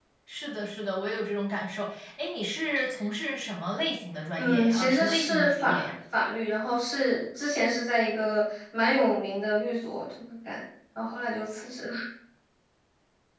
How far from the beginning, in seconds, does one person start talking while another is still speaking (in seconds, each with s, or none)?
4.4 s